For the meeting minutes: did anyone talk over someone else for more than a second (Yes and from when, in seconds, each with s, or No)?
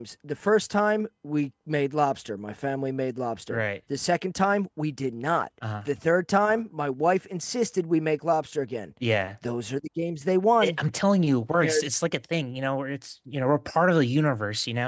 No